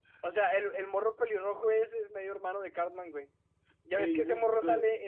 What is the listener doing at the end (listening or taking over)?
listening